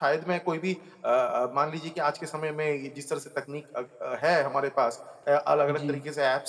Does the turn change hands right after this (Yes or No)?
No